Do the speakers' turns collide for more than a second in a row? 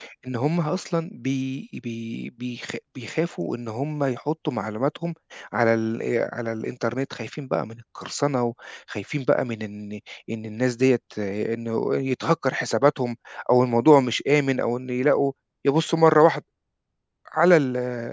No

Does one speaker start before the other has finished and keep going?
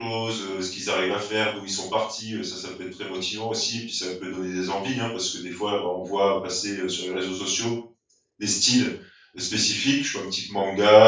No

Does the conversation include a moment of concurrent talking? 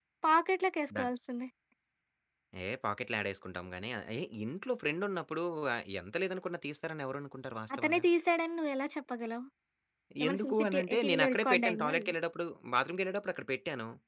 Yes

